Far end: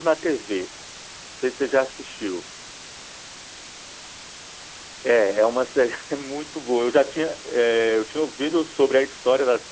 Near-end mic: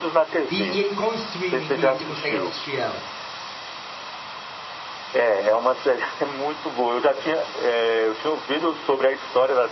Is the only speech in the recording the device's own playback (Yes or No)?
No